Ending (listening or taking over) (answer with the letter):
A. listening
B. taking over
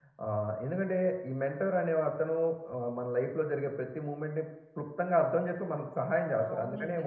B